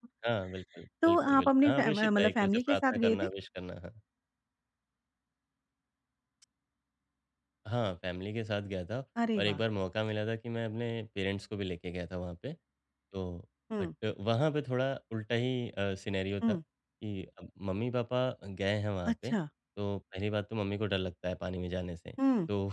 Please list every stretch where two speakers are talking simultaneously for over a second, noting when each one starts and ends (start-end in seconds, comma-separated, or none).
1.0-3.3